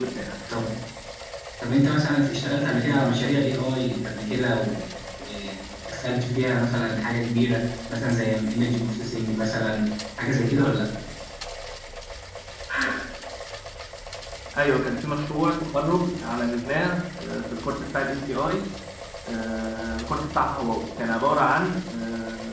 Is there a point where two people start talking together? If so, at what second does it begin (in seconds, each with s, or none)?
none